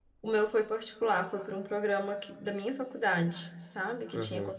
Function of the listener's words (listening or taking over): taking over